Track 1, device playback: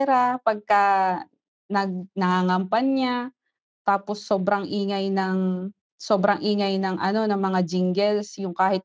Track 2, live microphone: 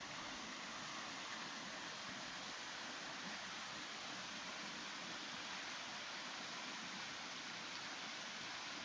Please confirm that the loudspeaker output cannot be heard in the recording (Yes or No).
Yes